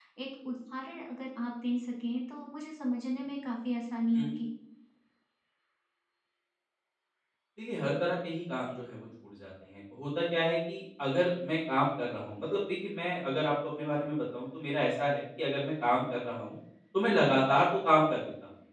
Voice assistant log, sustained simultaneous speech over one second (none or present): none